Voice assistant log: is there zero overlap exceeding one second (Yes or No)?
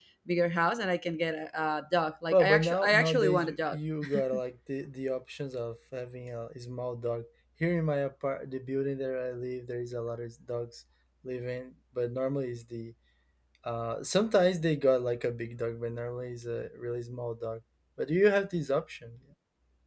No